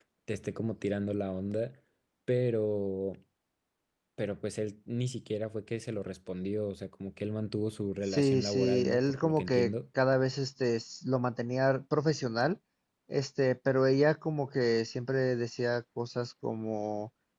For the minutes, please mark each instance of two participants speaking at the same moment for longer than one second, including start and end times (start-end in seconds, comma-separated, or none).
8.1-9.7